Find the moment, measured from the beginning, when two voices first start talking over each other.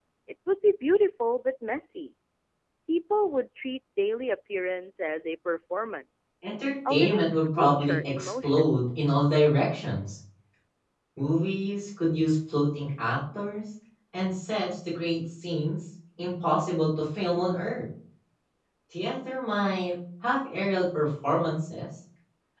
6.9 s

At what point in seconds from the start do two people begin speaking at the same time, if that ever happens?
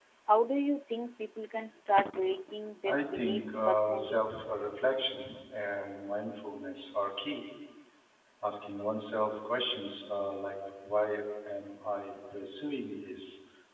2.9 s

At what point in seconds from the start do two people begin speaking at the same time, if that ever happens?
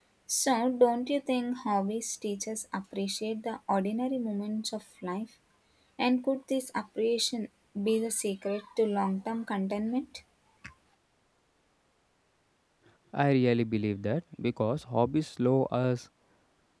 none

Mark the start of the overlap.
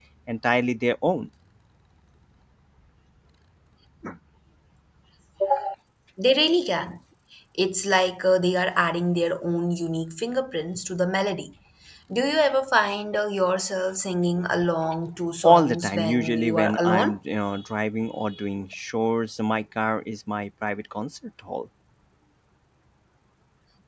15.4 s

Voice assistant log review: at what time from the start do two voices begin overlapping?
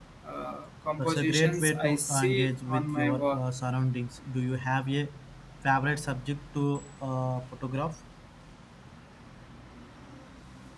1.0 s

